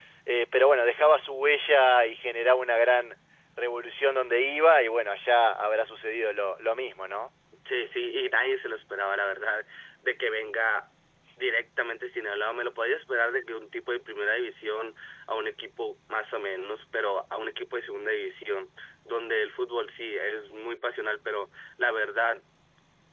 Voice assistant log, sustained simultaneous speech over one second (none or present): none